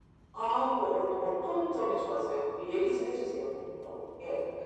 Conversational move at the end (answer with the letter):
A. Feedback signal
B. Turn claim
B